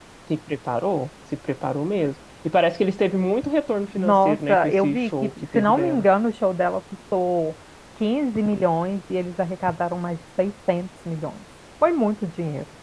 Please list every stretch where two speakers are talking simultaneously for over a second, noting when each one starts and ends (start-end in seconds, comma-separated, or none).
4.0-6.0